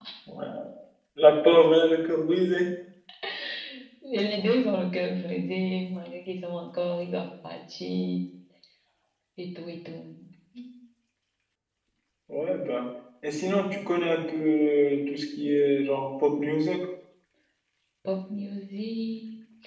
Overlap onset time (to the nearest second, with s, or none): none